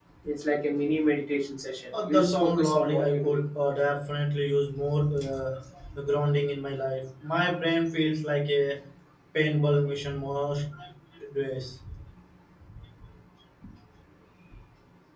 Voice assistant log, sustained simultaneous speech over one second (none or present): present